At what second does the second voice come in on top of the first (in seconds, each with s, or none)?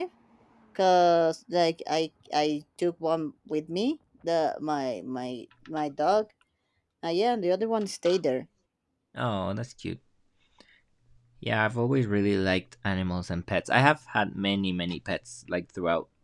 none